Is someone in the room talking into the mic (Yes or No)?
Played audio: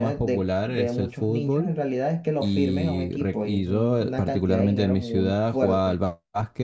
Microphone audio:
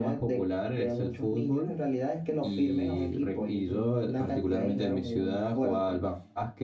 No